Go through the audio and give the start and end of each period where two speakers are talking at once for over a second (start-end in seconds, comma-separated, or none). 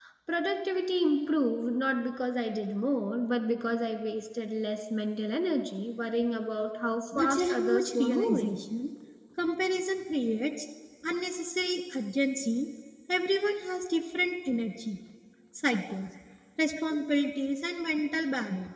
7.1-8.5